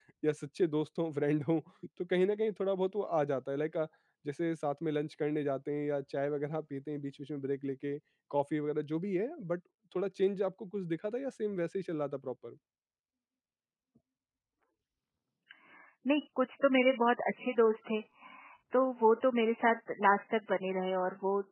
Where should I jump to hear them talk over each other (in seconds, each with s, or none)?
none